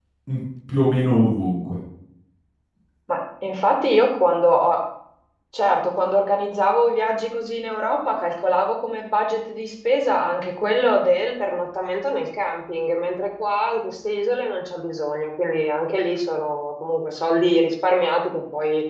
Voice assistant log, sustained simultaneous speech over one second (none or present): none